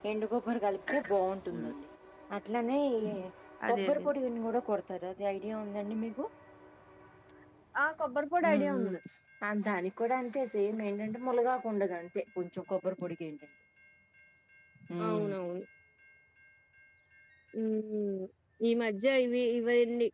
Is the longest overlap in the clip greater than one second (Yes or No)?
No